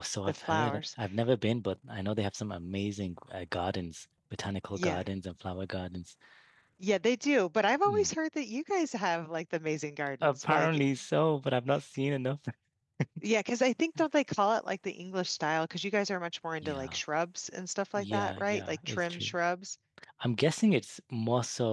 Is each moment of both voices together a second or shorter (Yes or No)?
No